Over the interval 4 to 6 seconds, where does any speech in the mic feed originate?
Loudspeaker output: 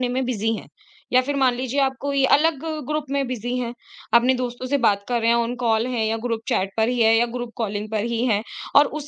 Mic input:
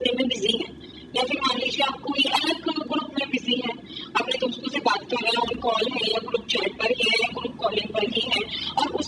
echo only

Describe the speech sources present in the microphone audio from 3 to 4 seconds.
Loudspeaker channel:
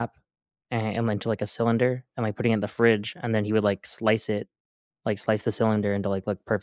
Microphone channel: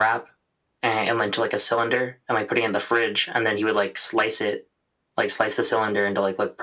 echo only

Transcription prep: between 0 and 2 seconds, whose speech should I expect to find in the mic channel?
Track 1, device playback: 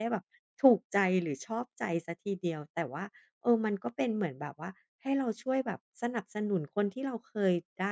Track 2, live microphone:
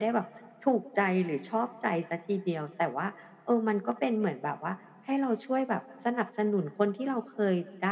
echo only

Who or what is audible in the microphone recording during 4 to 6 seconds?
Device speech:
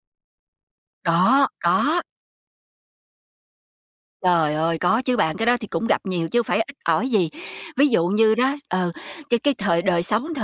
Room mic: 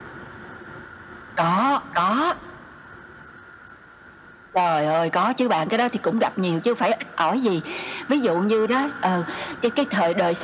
echo only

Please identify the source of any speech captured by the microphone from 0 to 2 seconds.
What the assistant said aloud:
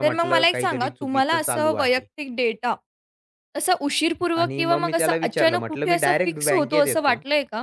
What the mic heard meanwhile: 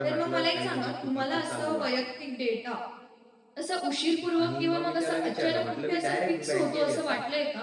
echo only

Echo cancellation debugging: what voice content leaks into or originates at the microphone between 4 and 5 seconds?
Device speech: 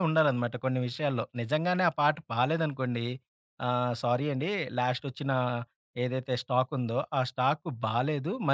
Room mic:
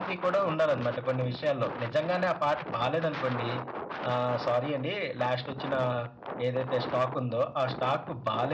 echo only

